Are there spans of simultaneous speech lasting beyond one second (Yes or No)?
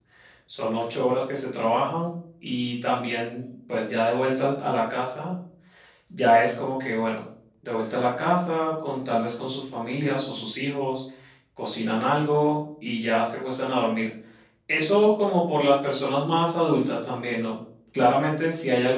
No